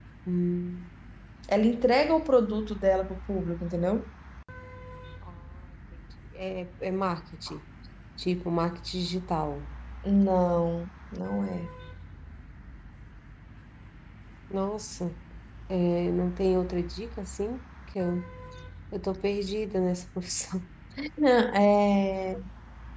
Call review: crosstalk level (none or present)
none